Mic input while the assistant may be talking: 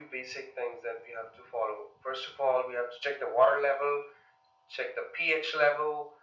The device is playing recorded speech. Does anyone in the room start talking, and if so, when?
none

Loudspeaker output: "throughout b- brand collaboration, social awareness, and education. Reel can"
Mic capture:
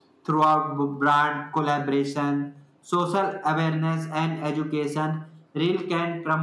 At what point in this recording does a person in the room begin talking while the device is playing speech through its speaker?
none

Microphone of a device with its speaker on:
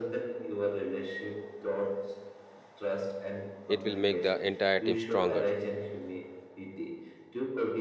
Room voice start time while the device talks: 3.7 s

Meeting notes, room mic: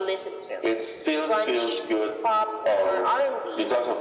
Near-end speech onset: none

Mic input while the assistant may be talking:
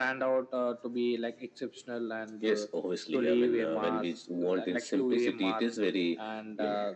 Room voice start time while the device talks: none

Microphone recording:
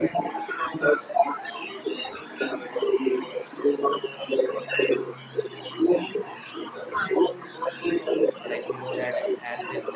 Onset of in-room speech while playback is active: 8.4 s

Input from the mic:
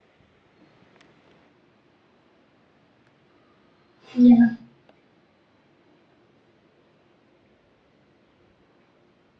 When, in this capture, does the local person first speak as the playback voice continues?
4.1 s

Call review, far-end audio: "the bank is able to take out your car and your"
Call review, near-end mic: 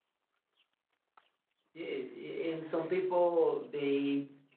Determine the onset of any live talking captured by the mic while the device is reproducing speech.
1.7 s

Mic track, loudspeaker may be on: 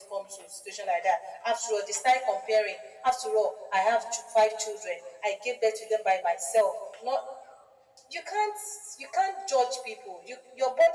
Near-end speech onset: none

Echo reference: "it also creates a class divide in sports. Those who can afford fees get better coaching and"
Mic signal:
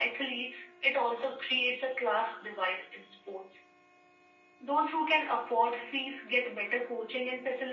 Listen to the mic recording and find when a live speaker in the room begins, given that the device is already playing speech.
none

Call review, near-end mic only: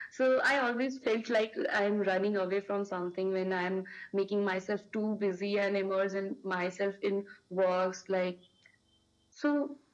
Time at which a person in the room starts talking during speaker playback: none

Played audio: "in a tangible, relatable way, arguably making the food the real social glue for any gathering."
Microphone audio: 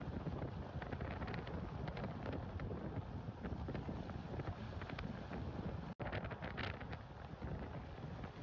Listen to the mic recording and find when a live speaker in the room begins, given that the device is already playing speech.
none

